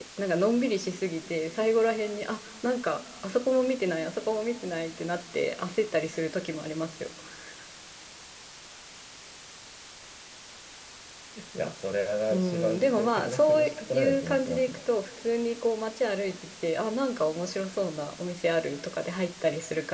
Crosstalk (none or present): present